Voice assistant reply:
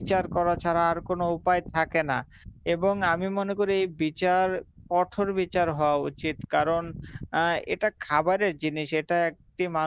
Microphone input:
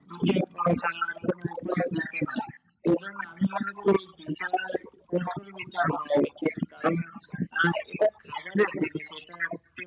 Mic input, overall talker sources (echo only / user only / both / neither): echo only